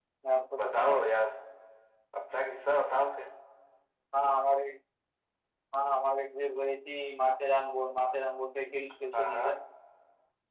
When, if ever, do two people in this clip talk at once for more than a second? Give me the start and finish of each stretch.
none

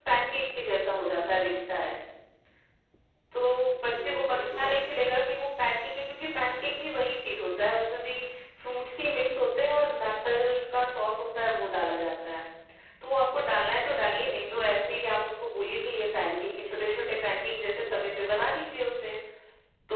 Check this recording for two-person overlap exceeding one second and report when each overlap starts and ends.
3.8-5.0

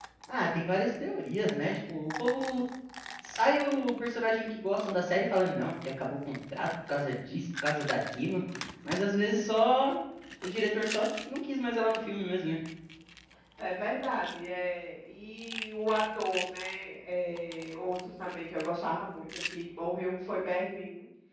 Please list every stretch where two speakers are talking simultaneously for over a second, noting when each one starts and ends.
none

